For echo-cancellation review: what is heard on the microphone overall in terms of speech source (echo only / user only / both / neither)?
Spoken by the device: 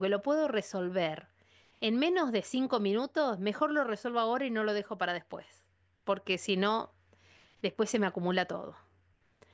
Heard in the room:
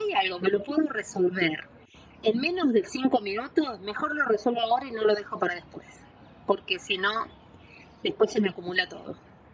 echo only